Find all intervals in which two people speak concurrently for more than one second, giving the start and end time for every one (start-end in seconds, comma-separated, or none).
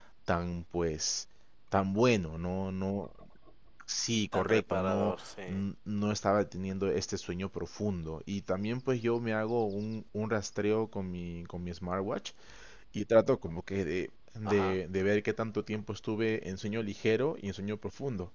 4.3-5.6